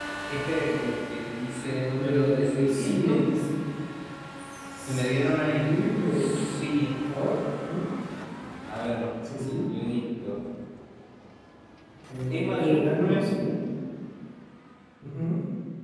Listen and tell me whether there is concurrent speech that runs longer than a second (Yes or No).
Yes